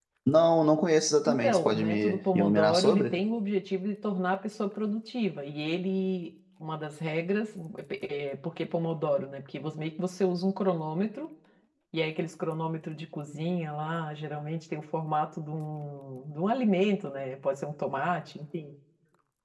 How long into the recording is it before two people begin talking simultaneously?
1.3 s

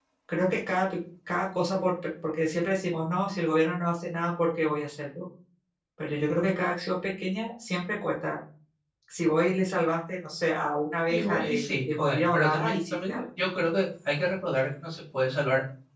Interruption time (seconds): 11.1 s

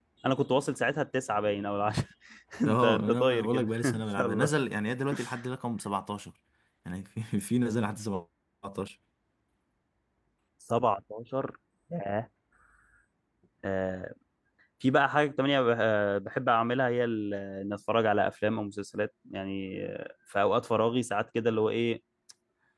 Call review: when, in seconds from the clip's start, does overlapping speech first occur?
2.7 s

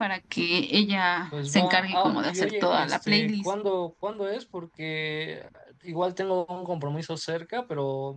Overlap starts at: 1.3 s

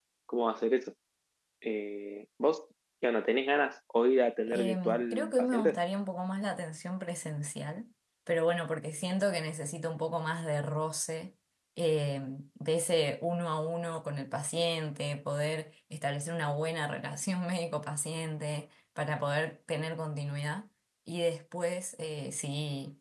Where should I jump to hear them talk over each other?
4.5 s

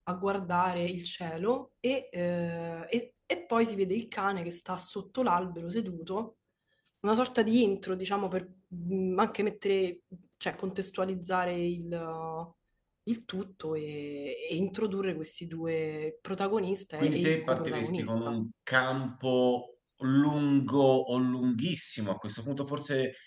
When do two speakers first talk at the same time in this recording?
17.0 s

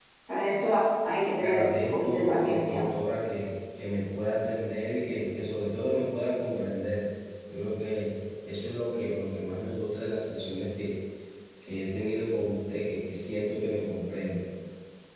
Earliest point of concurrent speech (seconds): 1.4 s

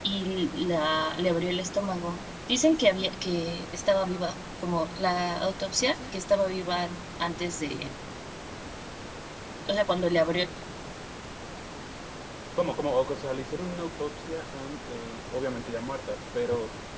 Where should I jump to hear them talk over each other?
none

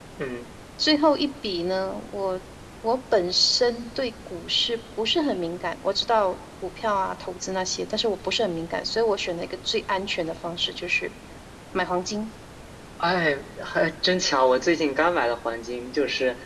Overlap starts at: none

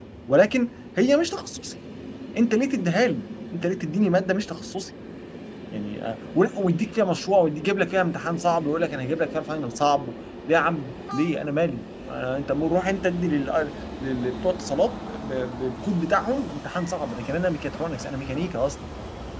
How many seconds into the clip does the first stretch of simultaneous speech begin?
none

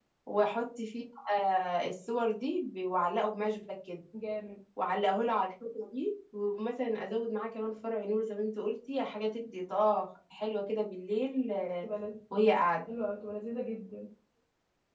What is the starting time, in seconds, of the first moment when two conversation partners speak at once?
none

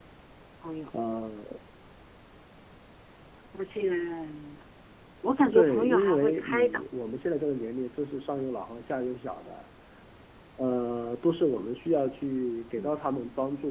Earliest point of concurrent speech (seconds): 5.5 s

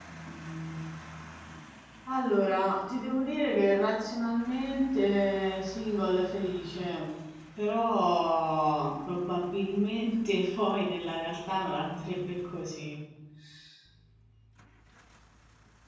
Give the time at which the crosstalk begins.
none

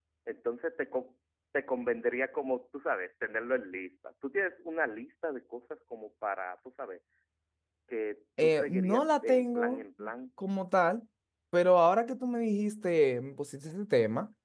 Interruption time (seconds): 8.4 s

